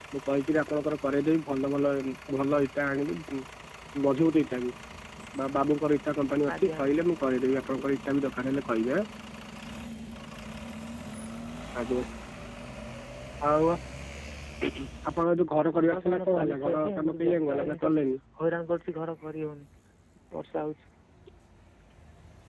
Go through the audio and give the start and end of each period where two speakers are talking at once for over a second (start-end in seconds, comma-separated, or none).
15.9-17.9